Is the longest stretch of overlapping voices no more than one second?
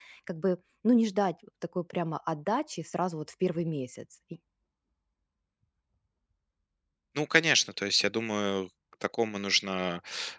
Yes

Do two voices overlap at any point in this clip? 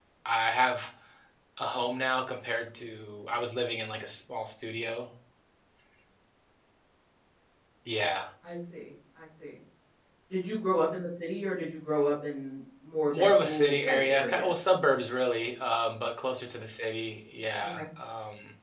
Yes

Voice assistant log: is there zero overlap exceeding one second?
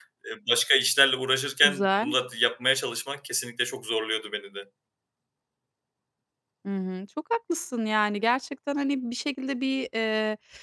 Yes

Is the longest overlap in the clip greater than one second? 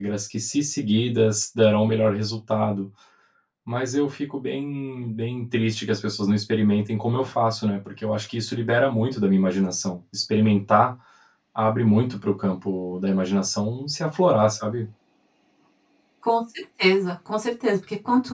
No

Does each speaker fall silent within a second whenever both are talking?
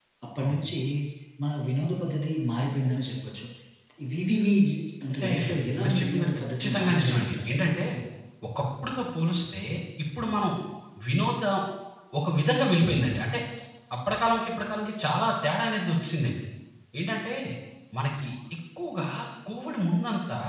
No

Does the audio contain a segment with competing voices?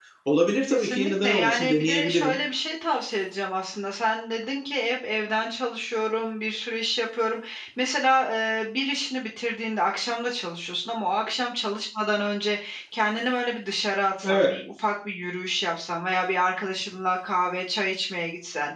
Yes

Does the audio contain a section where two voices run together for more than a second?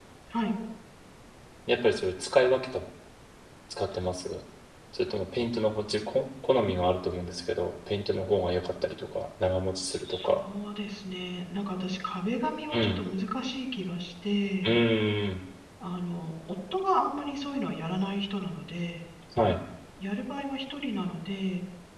No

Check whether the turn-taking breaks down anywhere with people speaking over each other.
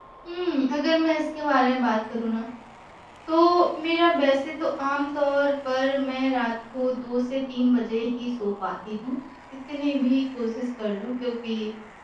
No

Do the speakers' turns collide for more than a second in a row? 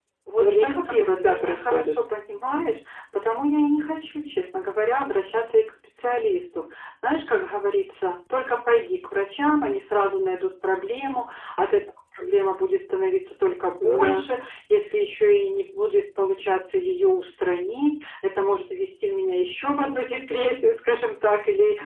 Yes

